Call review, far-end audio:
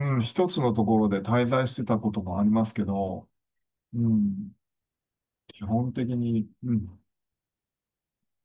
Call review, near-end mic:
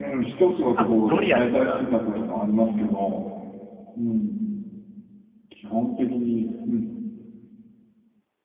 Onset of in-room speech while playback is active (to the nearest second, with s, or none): 1 s